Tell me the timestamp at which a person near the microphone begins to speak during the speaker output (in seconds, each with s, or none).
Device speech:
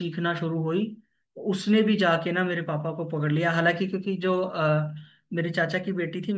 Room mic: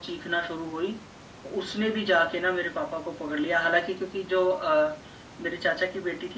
none